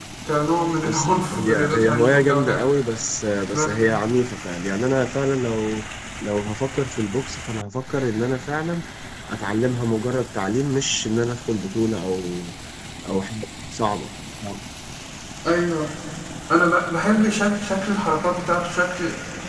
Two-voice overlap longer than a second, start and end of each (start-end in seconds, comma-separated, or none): 0.8-2.6